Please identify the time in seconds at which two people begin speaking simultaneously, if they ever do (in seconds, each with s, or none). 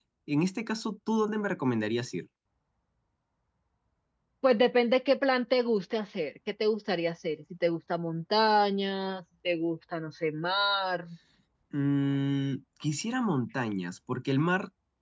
none